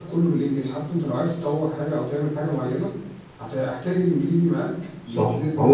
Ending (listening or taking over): taking over